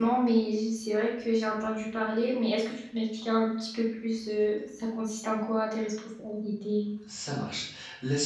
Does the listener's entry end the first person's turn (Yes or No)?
Yes